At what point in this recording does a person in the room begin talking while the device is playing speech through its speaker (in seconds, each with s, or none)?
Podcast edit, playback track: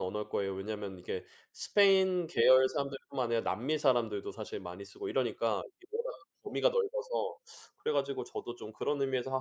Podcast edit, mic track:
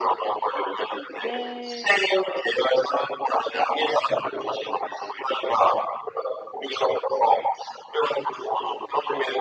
1.2 s